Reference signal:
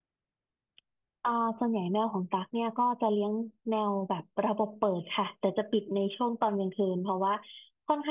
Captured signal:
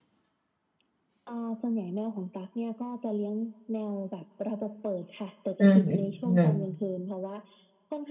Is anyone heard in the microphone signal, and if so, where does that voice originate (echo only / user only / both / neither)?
both